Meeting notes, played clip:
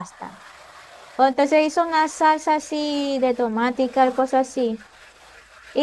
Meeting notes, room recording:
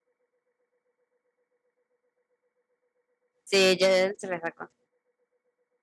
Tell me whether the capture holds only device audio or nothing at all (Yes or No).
No